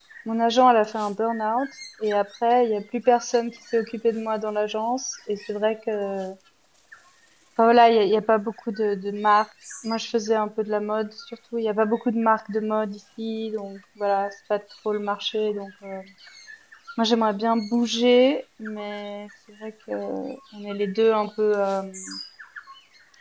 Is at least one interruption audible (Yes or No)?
No